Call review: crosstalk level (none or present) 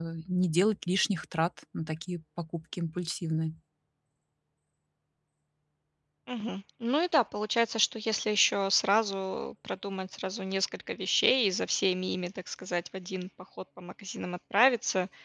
none